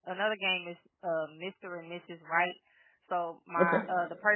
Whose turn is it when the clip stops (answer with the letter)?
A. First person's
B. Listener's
A